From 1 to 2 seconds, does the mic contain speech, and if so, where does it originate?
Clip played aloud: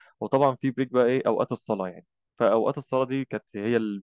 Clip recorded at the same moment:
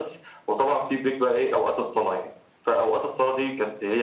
echo only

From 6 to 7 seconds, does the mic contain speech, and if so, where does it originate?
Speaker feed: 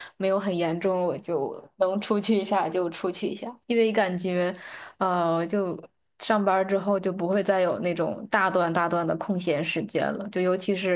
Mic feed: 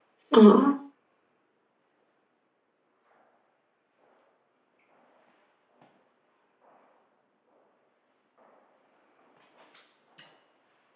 neither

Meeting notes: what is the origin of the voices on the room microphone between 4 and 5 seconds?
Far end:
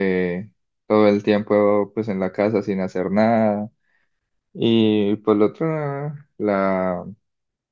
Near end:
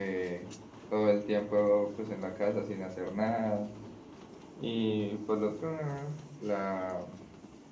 echo only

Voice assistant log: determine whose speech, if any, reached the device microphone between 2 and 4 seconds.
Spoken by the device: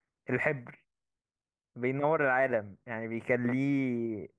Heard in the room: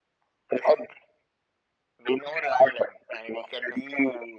echo only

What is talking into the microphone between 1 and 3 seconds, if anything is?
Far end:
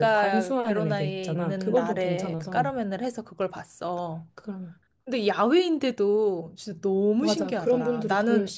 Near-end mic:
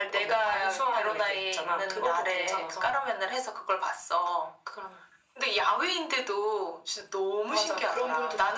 echo only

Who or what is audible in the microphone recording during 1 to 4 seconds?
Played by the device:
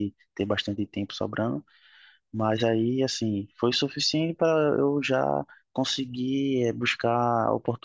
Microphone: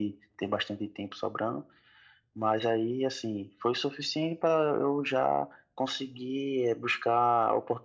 echo only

